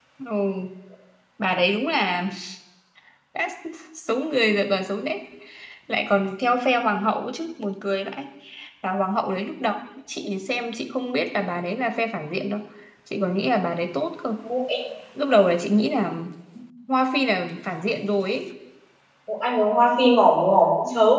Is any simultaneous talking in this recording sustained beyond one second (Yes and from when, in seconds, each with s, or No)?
No